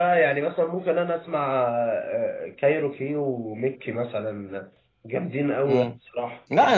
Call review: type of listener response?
taking over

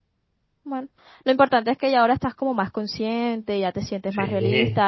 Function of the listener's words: listening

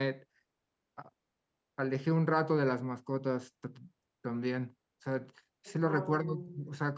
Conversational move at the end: listening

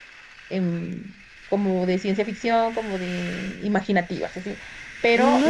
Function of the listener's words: taking over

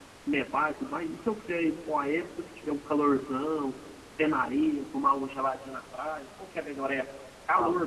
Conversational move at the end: taking over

